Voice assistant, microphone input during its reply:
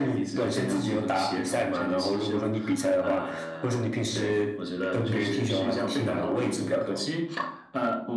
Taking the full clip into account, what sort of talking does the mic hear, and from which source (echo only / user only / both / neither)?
echo only